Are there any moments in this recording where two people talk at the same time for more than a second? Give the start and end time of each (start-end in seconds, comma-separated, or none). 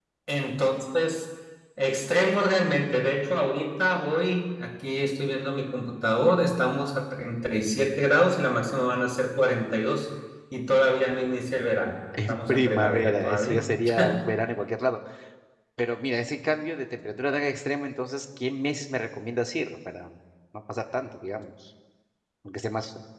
12.3-13.6